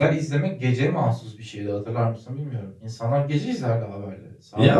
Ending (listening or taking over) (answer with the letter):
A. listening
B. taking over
B